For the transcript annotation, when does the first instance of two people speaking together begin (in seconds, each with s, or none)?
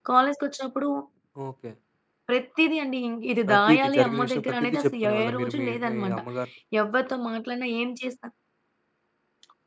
3.5 s